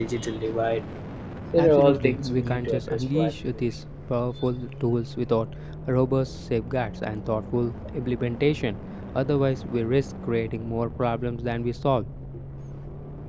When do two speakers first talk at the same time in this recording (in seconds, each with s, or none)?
1.6 s